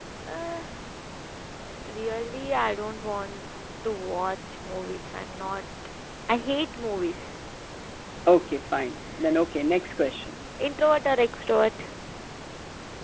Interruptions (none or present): none